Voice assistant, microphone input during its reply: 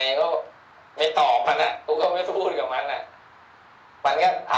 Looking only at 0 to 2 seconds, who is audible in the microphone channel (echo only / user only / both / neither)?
echo only